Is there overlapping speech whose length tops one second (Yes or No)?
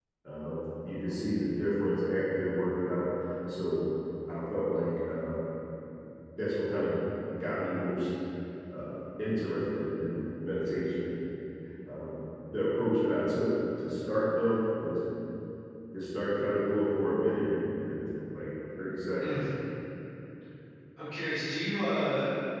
No